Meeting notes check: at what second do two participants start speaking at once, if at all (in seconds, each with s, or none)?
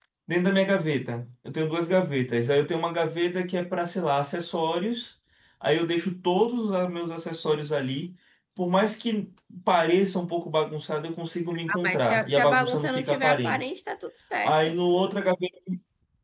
11.7 s